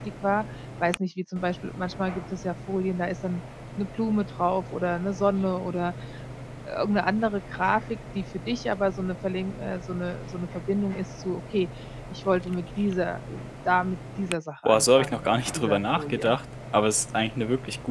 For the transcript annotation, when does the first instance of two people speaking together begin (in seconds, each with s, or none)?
14.6 s